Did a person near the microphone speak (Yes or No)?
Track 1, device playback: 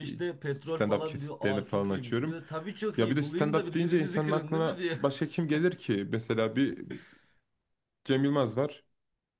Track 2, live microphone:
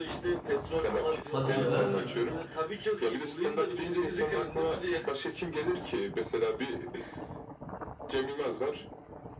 Yes